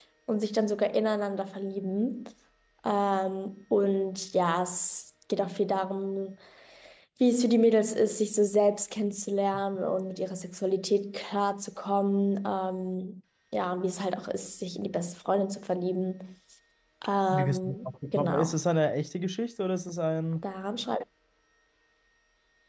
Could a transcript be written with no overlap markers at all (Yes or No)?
No